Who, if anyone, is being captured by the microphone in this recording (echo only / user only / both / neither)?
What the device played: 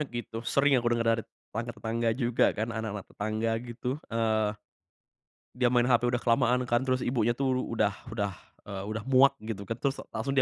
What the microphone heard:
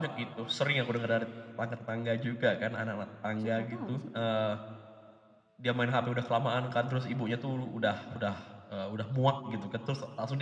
both